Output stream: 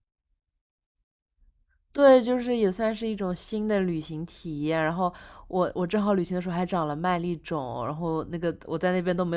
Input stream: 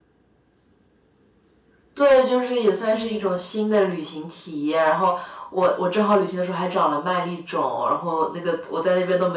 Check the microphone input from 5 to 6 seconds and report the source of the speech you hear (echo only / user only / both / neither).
echo only